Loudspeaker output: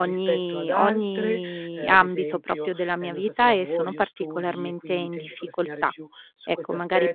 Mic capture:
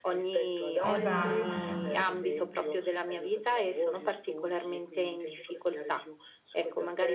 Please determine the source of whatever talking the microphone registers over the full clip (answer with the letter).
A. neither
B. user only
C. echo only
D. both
D